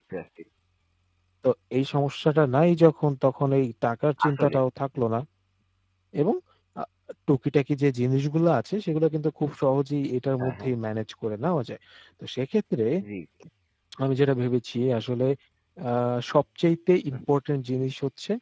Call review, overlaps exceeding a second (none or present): none